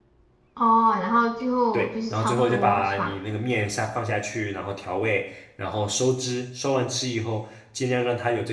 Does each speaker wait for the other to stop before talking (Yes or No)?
No